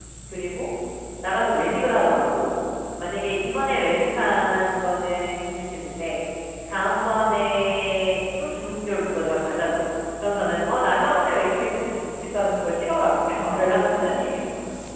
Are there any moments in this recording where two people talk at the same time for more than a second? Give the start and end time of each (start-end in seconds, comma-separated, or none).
none